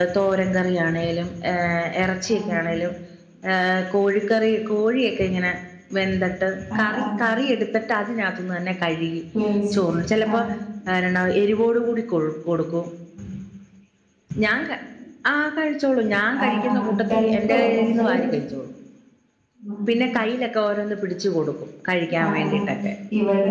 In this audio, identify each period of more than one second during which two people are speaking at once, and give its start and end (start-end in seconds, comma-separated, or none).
16.5-18.1